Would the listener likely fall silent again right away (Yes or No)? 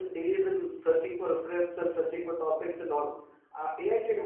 Yes